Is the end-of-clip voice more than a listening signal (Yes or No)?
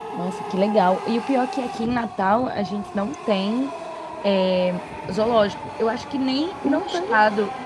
No